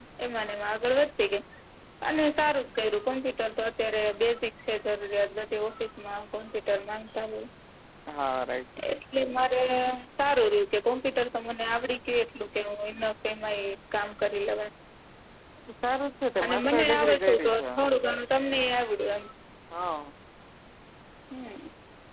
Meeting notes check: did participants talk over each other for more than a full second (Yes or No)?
Yes